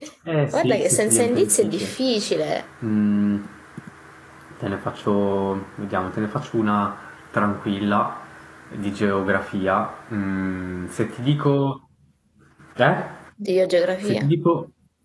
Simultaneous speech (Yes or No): Yes